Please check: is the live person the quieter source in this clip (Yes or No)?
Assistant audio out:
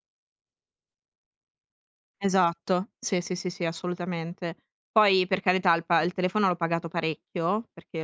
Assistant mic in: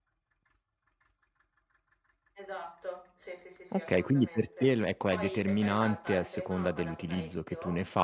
No